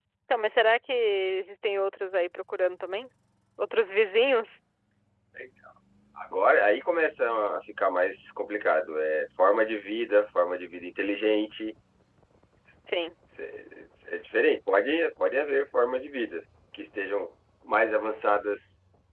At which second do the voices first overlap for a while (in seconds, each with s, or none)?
none